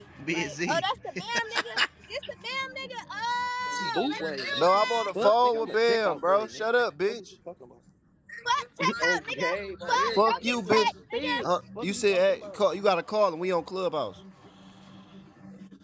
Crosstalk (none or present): present